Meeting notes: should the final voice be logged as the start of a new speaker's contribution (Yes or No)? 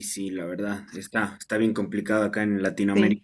No